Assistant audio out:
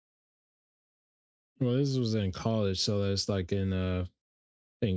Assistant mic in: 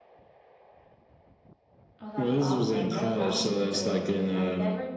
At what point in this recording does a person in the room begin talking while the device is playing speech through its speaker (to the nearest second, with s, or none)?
2 s